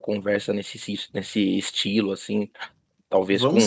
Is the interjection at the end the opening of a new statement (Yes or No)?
No